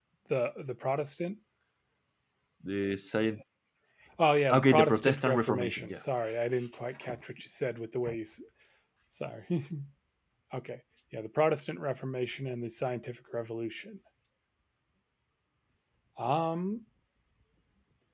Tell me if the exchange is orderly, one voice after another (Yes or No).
No